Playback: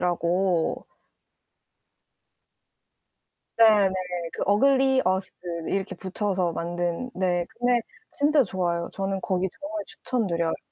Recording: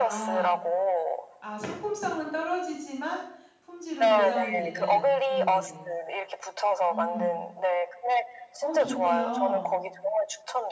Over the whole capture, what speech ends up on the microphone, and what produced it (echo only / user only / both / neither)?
both